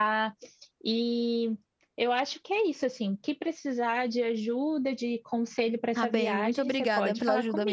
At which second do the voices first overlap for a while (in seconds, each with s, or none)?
6.0 s